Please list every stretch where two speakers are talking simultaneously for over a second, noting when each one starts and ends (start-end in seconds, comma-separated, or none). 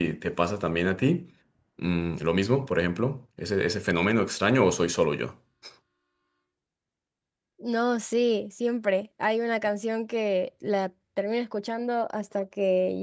none